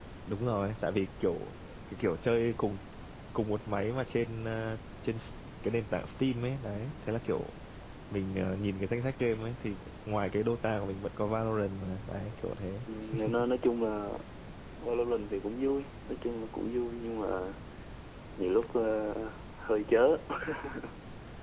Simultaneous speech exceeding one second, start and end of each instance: none

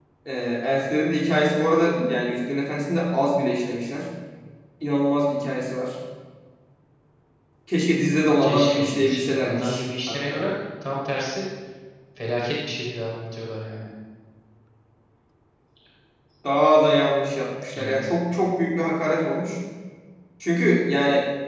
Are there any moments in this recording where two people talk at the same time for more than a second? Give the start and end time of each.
8.4-10.5

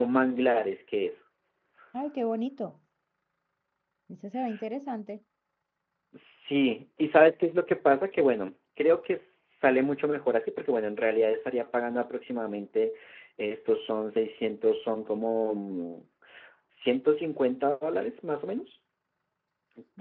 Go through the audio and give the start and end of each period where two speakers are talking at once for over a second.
none

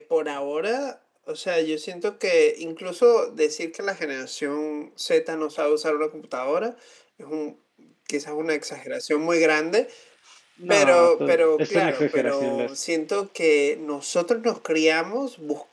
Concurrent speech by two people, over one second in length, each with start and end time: 10.7-12.7

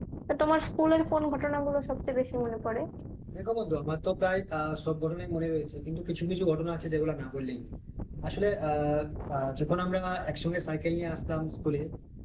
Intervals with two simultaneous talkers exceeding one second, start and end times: none

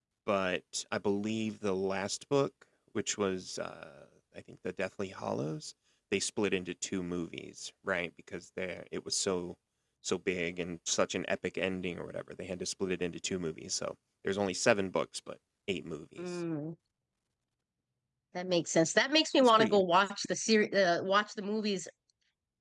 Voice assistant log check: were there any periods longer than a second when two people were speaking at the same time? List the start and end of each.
none

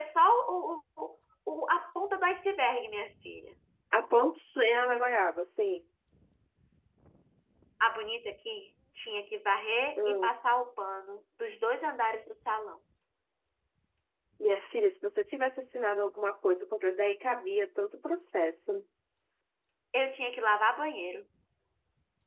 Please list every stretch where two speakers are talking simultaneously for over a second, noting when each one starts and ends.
none

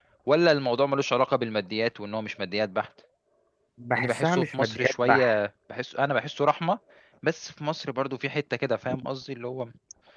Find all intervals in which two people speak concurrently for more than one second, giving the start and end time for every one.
4.0-5.4

